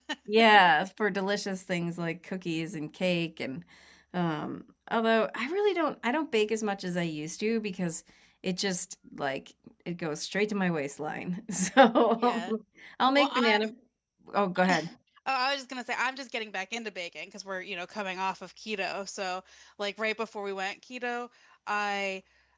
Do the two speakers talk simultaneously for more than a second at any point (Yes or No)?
No